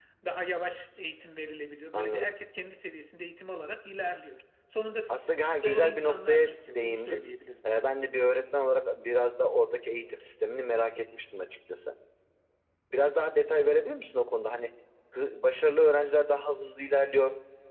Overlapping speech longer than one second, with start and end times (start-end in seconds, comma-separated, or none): 5.1-7.2